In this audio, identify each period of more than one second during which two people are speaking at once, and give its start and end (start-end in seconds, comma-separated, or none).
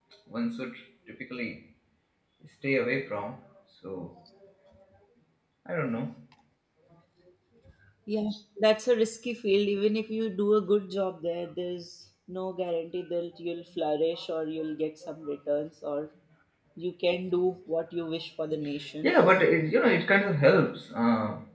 none